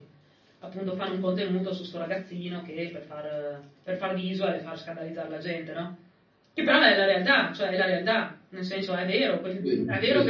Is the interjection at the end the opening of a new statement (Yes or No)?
No